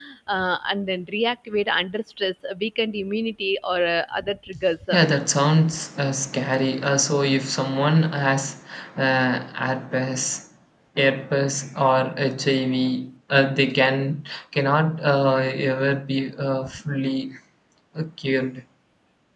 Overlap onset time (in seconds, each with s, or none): none